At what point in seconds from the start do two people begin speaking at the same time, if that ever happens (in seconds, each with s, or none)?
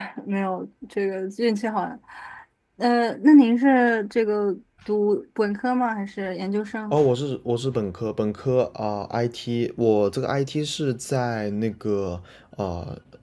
none